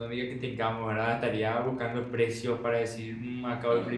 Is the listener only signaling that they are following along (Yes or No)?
Yes